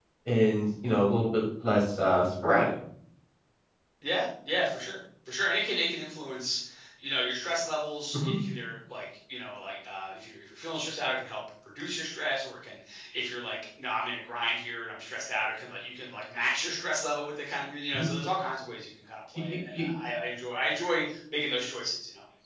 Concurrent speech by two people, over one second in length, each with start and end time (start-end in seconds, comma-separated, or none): none